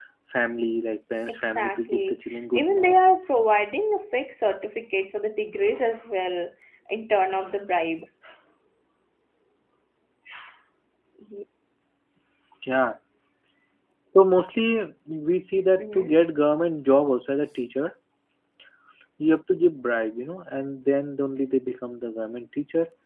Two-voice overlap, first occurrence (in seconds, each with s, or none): 1.3 s